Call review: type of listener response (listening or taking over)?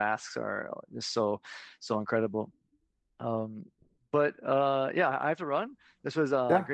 listening